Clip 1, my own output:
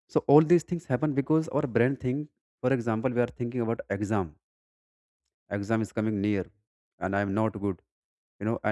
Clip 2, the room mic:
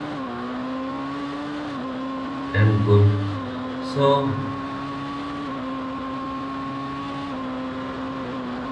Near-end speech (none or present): present